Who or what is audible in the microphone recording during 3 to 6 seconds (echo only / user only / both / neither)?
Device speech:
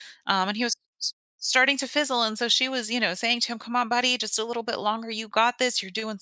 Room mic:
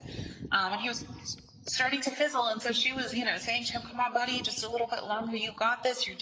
echo only